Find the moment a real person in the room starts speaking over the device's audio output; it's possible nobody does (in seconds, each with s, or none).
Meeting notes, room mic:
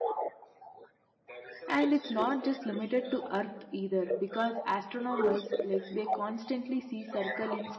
1.7 s